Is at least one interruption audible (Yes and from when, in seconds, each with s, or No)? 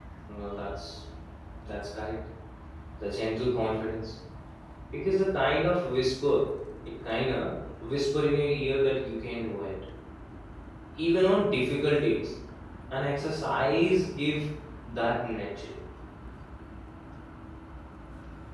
No